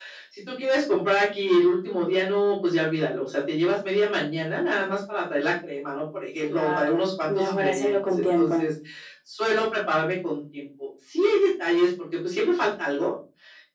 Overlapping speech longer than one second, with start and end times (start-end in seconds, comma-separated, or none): 6.5-8.6